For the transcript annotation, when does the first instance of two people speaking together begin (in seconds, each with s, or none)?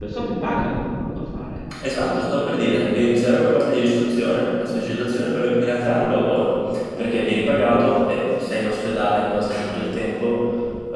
none